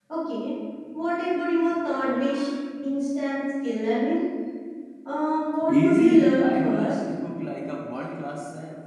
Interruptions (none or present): present